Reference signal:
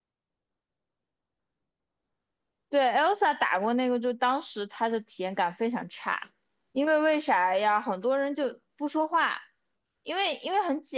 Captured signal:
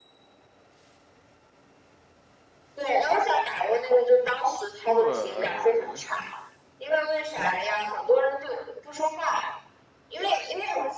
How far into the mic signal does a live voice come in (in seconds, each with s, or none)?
4.8 s